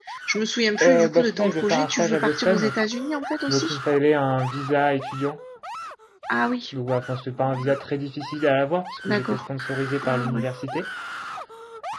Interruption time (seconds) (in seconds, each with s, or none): 0.8 s